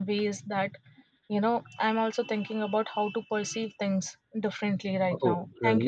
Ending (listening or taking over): taking over